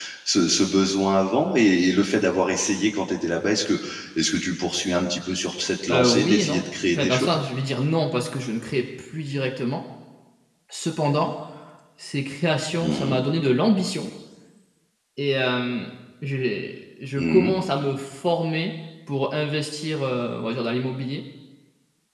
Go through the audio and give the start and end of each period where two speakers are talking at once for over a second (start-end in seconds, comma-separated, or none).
5.9-7.3